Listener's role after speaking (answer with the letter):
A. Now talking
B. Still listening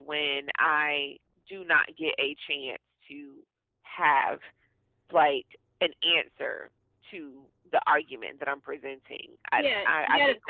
A